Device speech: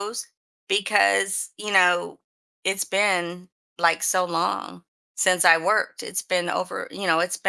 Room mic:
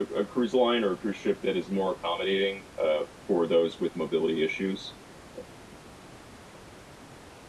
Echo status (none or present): none